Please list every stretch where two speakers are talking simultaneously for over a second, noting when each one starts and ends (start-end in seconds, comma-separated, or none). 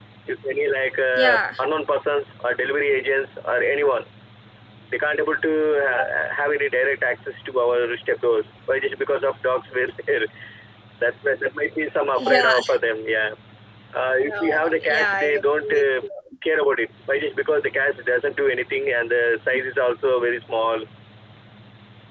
14.2-15.8